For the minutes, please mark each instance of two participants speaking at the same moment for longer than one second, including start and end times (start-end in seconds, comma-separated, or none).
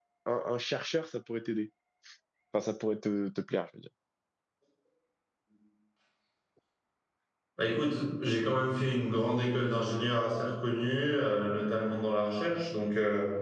none